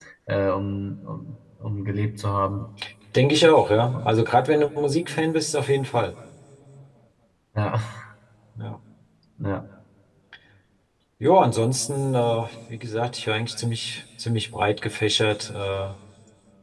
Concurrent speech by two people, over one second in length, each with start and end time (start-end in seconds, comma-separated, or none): none